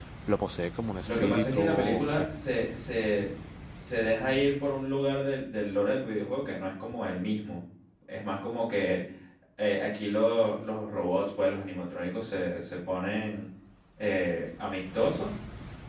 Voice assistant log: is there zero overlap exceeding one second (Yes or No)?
No